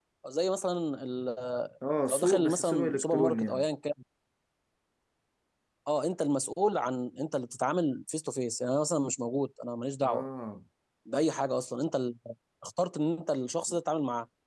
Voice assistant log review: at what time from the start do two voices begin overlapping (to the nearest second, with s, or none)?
2 s